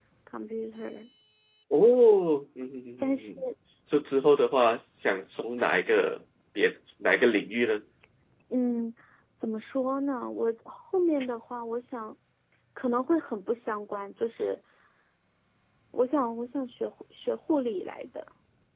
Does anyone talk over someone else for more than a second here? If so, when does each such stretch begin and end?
none

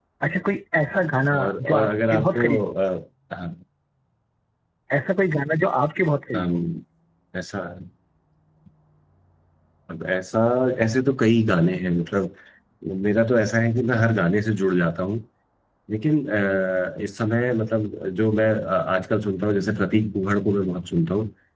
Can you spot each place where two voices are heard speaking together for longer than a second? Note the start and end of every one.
1.3-2.7

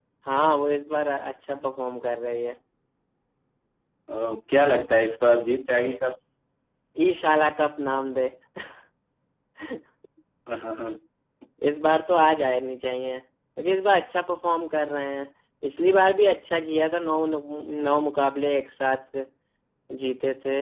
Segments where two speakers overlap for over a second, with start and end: none

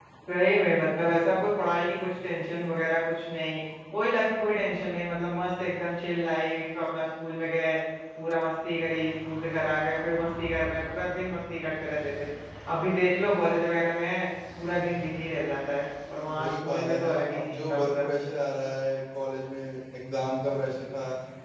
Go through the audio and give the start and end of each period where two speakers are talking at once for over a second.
16.3-18.1

